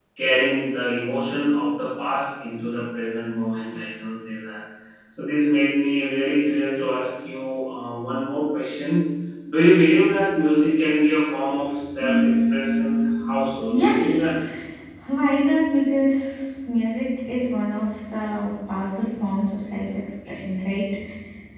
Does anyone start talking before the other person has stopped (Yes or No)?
Yes